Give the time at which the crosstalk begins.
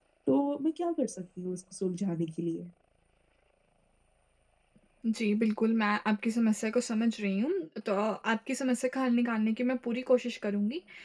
none

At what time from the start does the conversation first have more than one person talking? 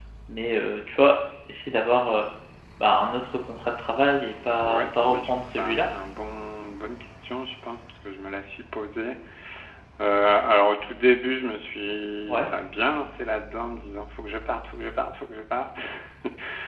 5 s

